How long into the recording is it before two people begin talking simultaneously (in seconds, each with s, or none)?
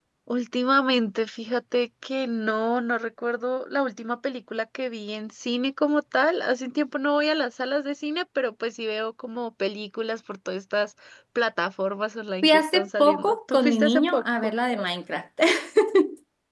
12.4 s